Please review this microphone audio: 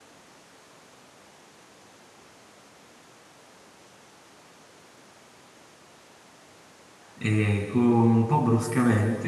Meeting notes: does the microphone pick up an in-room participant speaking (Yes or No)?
Yes